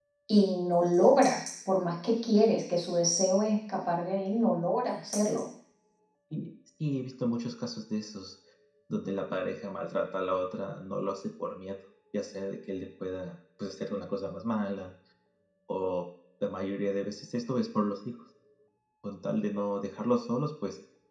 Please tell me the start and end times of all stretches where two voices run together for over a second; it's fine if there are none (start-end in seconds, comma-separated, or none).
none